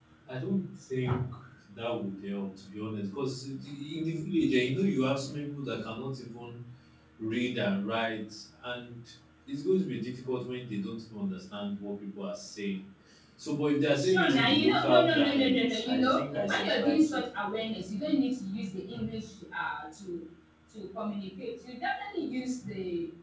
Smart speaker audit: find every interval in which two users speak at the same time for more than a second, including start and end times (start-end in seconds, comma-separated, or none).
14.0-17.2